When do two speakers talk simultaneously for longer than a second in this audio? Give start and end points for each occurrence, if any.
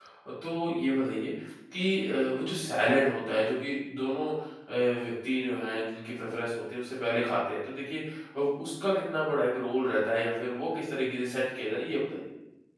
none

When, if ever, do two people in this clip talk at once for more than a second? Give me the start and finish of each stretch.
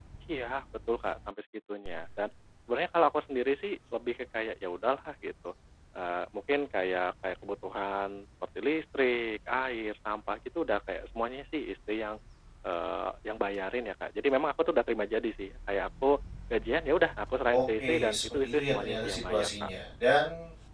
17.5-19.7

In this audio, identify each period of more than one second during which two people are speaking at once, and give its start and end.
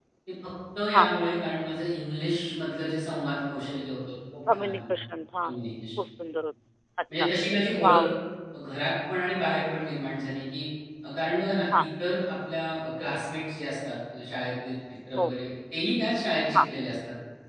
none

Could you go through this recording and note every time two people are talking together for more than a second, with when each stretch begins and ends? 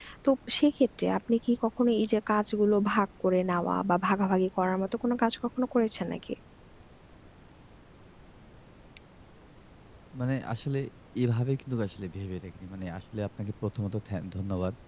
none

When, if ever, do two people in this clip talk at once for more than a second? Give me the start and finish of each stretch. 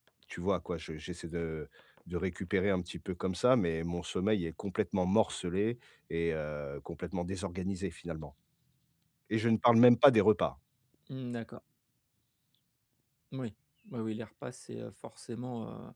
none

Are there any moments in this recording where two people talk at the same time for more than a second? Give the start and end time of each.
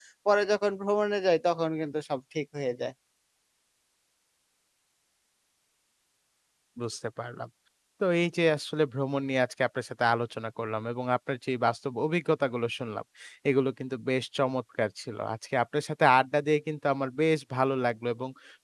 none

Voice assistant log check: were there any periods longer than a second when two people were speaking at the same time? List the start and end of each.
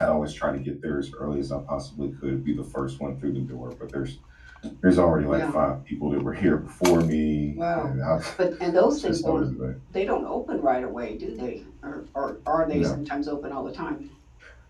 none

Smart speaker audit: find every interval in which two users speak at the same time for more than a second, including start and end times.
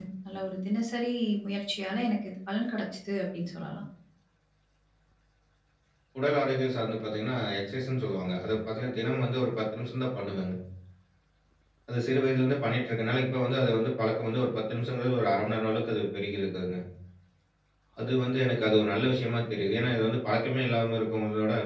none

